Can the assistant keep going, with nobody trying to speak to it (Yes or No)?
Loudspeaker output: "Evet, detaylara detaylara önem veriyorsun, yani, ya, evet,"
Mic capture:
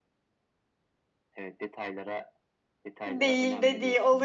No